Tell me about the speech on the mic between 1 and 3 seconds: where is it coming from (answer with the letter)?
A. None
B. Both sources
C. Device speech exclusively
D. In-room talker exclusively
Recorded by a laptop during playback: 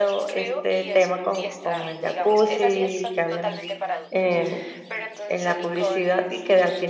B